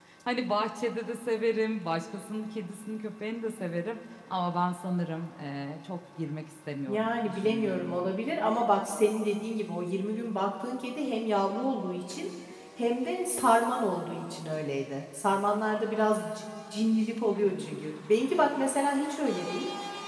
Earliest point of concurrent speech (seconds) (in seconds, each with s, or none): 6.9 s